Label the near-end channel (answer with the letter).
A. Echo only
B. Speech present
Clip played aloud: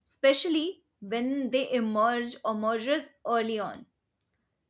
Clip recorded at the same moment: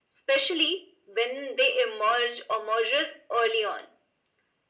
A